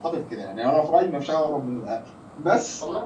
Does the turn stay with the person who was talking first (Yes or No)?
No